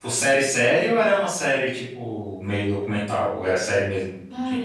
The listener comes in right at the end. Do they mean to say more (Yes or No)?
Yes